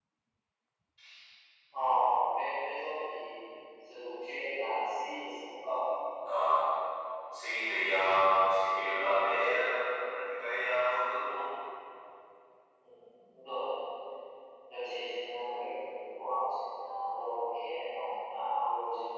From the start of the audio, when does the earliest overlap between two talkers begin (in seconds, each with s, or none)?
none